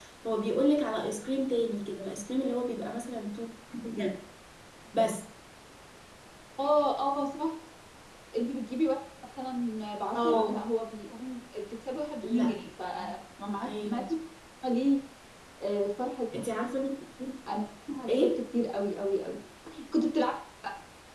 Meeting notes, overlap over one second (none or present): none